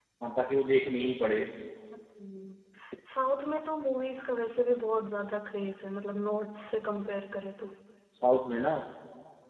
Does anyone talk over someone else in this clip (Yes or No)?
No